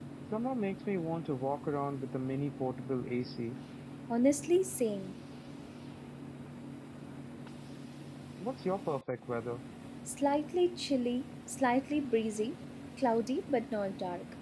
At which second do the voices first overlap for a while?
none

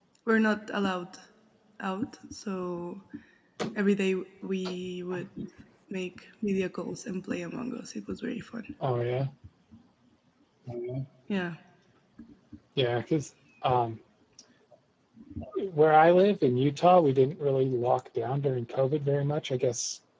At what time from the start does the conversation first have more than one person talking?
none

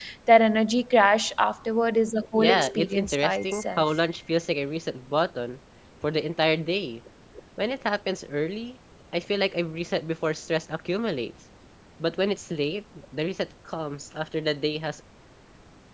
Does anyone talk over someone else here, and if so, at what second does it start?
2.4 s

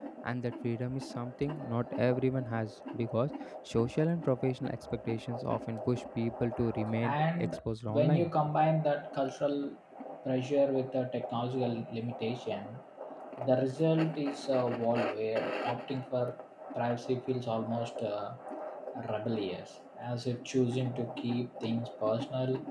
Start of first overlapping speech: 7.0 s

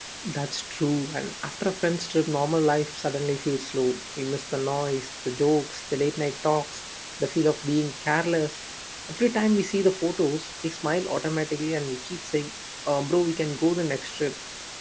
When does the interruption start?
none

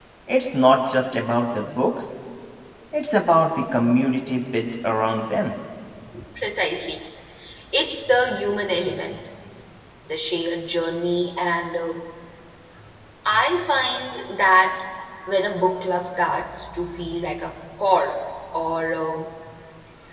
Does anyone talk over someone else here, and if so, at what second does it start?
none

